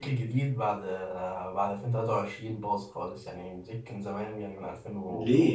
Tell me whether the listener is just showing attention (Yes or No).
No